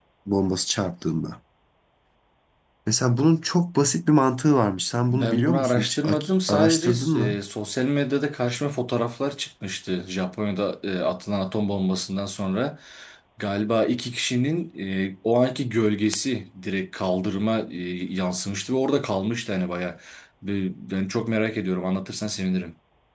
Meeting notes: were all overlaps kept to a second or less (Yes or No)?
No